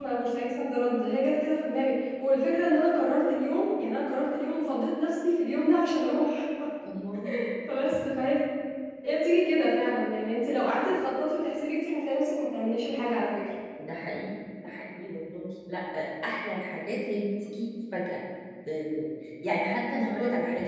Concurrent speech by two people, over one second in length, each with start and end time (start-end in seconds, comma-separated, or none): none